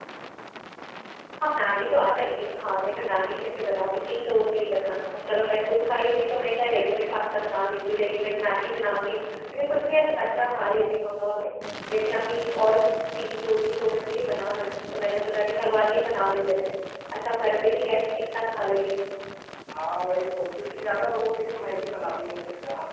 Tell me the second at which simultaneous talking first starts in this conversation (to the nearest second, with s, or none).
none